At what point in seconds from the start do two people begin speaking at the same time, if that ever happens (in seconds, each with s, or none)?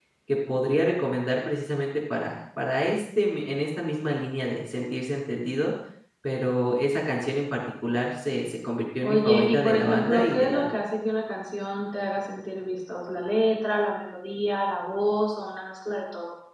9.0 s